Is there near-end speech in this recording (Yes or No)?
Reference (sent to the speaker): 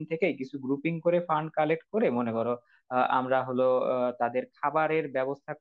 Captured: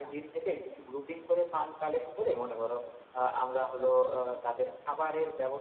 No